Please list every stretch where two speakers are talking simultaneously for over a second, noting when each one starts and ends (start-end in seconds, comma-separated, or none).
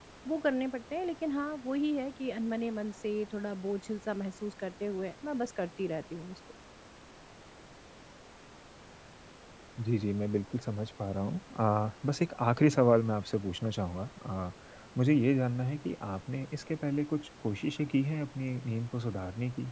none